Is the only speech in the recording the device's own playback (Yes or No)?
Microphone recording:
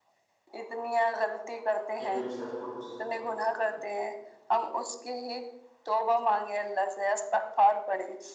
No